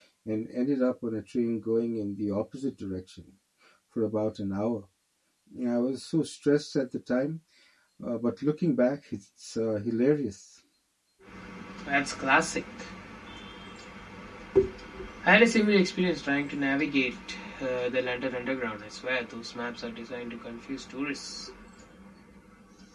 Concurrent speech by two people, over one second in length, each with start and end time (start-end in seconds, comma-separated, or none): none